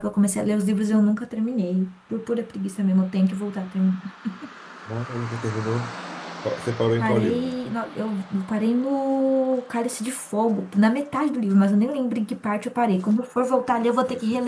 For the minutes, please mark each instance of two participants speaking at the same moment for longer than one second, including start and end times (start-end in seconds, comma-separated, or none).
none